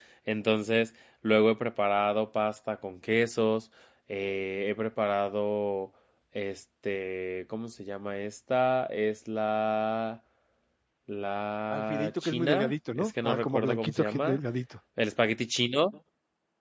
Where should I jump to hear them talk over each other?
12 s

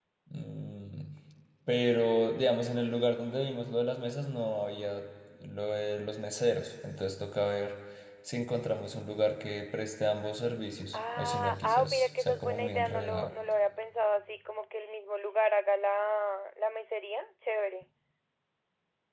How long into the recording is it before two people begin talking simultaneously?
11 s

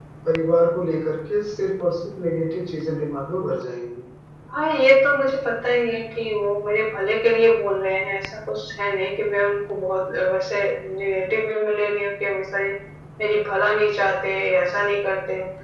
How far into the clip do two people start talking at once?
none

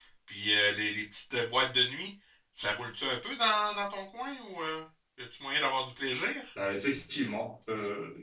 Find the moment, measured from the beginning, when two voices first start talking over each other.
none

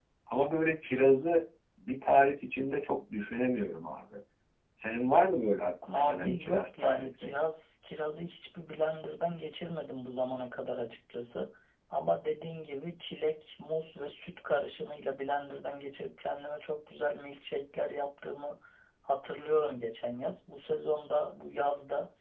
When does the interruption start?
6 s

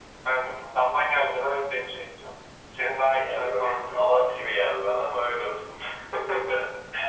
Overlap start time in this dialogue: 3 s

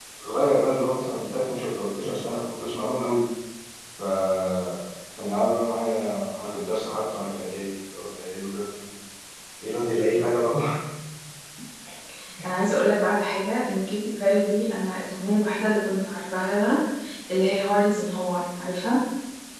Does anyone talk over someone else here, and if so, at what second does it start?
none

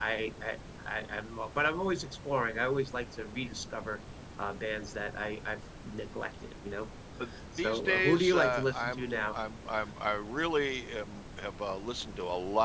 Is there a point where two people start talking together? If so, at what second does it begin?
8 s

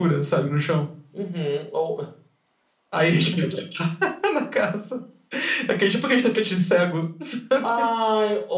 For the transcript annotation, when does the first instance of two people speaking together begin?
none

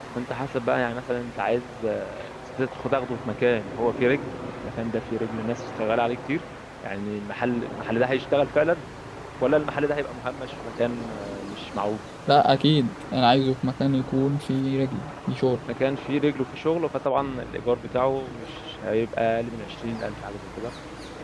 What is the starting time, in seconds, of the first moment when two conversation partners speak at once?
none

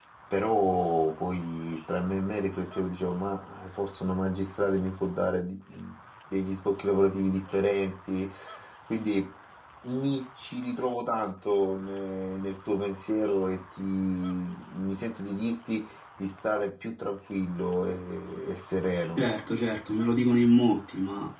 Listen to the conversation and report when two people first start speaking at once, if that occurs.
none

